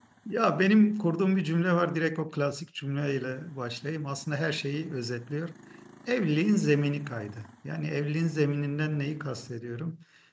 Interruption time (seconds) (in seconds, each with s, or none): none